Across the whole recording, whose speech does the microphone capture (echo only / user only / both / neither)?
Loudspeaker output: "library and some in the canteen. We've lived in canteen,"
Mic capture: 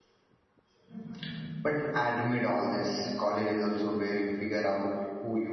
user only